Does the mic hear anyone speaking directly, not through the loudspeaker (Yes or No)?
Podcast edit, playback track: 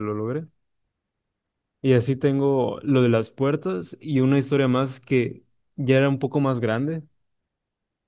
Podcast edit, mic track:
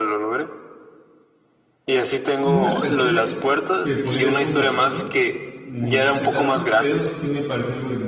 Yes